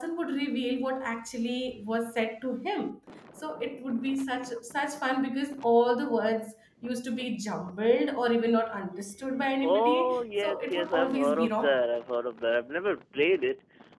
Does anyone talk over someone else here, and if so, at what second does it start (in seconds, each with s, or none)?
9.6 s